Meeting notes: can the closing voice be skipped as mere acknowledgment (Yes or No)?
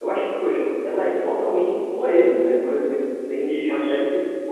Yes